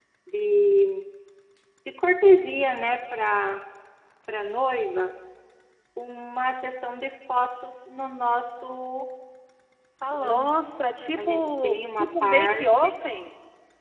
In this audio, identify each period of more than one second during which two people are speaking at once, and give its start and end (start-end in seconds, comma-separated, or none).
11.2-12.9